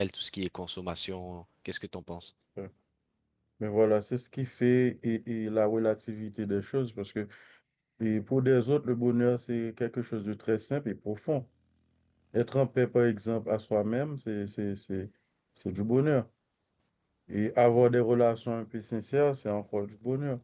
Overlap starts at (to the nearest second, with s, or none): none